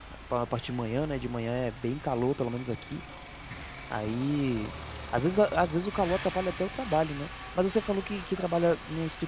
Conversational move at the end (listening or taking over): listening